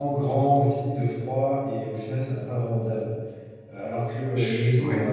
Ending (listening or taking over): listening